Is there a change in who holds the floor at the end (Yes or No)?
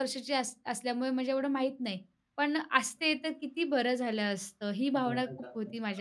Yes